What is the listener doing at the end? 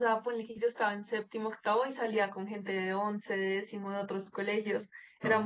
listening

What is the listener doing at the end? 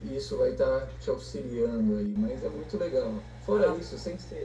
listening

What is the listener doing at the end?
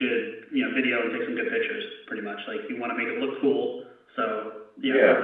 listening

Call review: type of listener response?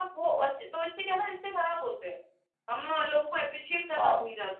listening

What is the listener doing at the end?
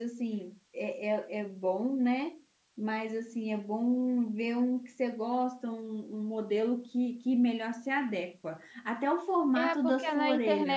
taking over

